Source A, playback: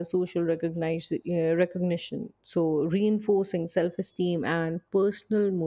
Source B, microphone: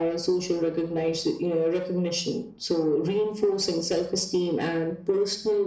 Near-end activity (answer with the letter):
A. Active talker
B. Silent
B